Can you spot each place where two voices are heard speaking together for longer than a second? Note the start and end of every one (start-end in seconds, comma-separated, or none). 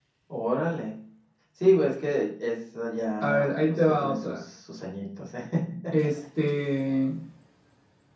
3.2-4.4